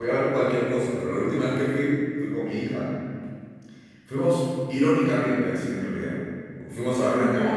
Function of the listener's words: listening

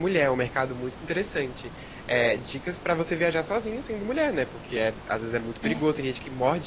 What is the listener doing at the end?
listening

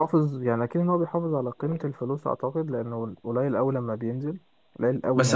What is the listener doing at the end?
taking over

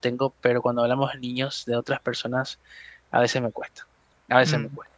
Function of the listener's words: listening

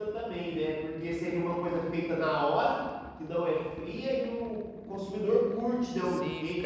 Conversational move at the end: taking over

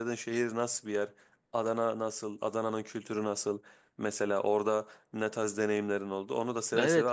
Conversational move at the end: taking over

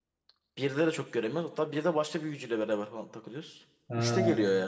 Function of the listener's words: listening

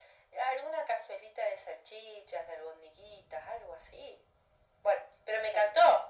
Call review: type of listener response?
listening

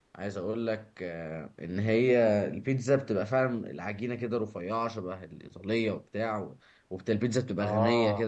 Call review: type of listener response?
listening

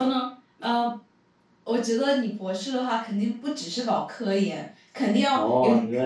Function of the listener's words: taking over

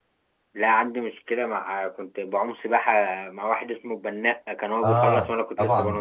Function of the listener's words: taking over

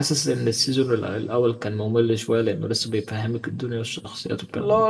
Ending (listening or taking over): taking over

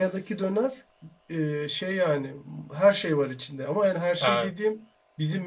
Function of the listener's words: listening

